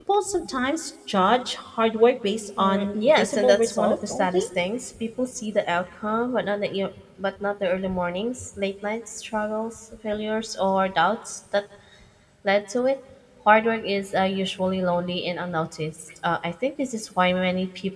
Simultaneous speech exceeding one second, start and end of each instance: 2.6-4.4

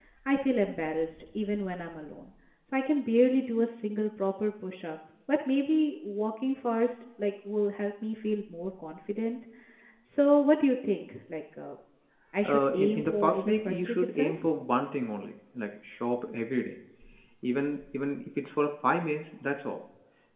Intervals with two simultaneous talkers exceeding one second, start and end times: 12.4-14.4

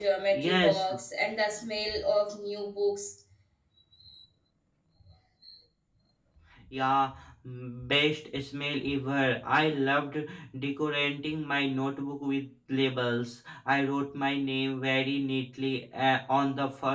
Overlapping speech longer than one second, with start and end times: none

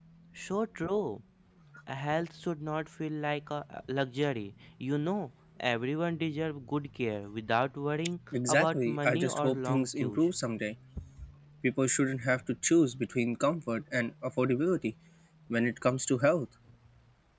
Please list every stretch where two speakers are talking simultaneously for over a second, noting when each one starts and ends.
8.5-10.2

